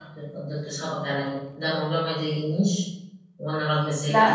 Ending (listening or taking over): taking over